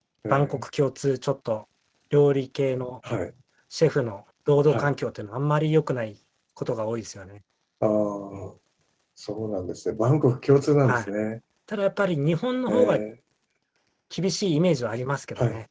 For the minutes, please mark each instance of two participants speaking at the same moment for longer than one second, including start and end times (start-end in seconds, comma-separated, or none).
none